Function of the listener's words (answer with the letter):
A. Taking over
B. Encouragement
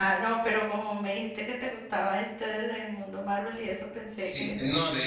A